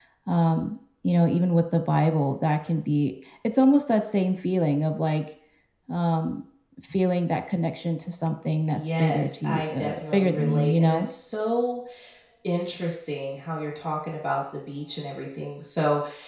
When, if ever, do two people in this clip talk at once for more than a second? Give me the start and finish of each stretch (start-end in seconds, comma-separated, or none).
8.7-11.1